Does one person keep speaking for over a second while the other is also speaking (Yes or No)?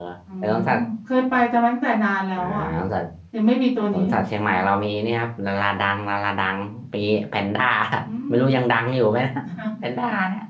No